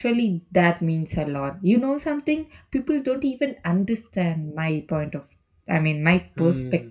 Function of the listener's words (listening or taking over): taking over